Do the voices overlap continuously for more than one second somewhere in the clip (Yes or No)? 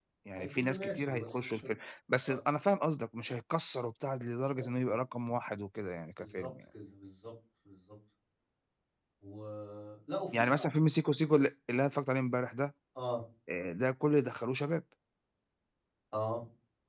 Yes